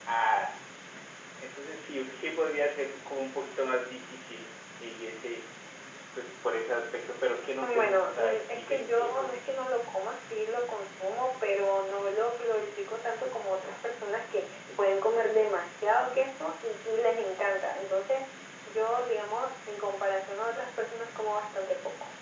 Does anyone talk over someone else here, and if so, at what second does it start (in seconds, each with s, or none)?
7.6 s